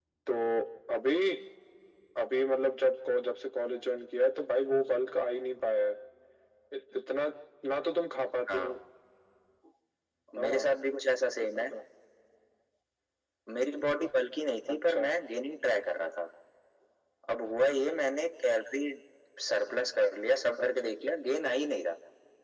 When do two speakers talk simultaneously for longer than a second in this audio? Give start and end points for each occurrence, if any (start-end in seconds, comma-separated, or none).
none